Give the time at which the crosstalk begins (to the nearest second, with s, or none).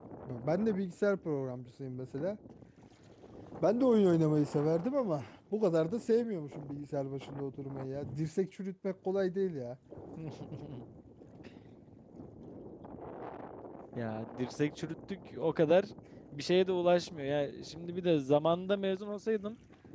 none